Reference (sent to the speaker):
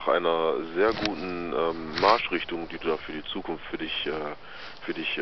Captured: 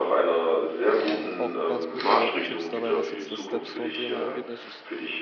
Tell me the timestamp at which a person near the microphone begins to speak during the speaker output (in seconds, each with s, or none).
1.4 s